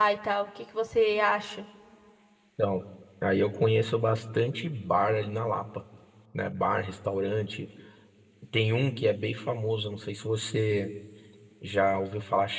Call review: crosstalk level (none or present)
none